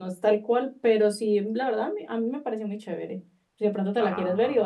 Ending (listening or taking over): listening